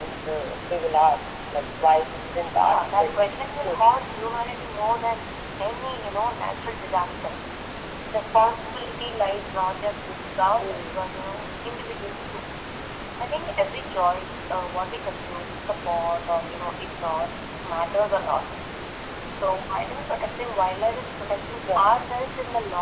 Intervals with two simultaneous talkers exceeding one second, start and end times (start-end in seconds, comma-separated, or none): 2.6-3.8